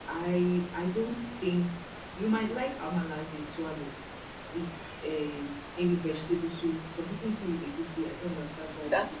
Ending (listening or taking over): taking over